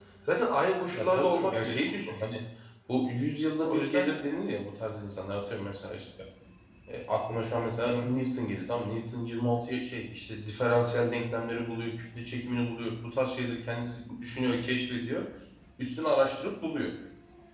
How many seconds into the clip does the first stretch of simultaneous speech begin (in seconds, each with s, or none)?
0.9 s